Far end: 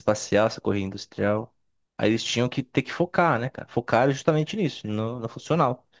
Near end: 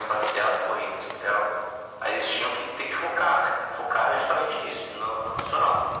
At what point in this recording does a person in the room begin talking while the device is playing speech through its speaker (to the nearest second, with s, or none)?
none